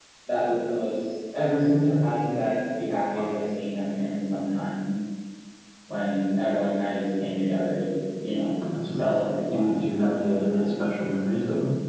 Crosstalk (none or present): present